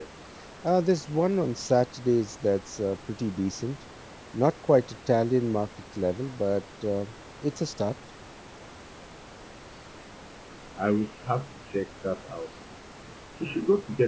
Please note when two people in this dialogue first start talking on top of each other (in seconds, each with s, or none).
none